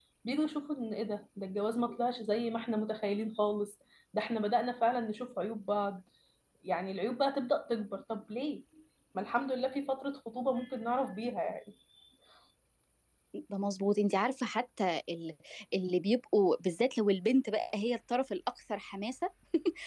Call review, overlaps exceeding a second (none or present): none